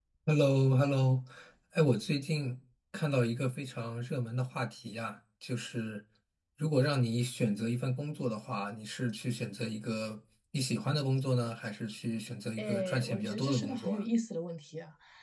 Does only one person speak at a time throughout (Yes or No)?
No